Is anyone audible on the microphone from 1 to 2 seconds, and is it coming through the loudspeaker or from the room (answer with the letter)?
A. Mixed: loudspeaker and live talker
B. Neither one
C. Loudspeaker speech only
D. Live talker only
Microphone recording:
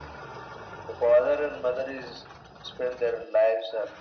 C